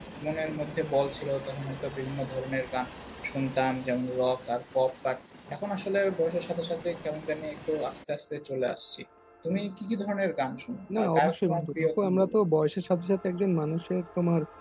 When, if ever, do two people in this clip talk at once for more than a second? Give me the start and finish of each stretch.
10.9-12.3

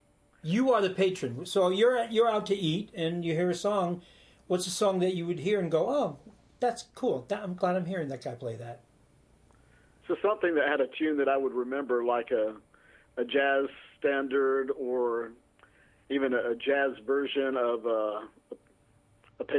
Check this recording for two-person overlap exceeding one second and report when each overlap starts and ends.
none

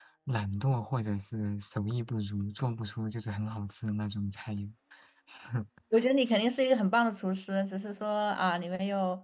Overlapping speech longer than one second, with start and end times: none

